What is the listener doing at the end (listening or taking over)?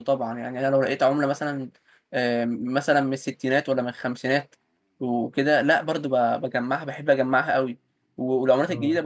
listening